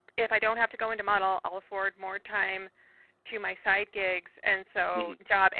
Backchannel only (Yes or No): Yes